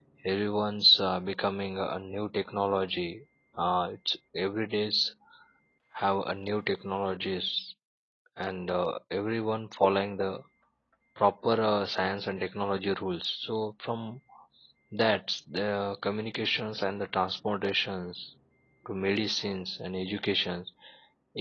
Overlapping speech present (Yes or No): No